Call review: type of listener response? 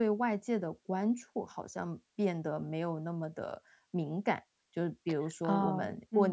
listening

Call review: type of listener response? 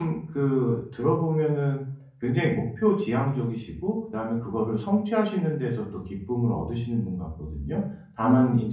listening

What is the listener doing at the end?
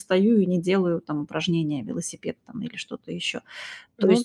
listening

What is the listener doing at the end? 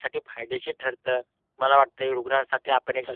listening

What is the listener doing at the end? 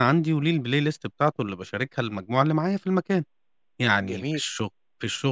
listening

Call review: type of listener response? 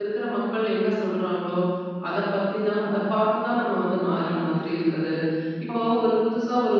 listening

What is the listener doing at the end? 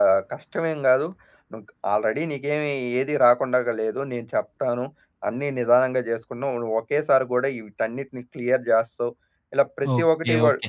taking over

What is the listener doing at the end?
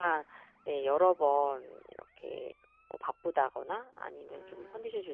listening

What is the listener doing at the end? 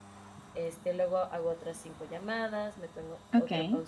taking over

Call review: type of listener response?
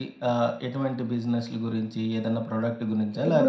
taking over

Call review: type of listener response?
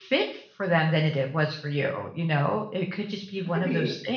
listening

